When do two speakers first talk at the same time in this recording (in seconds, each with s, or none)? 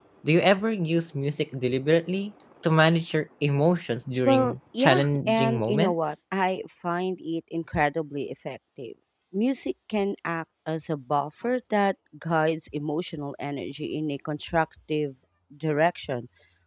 4.2 s